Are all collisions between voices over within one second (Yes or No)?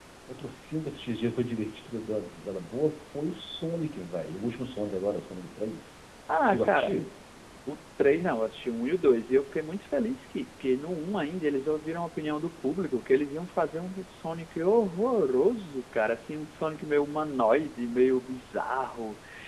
Yes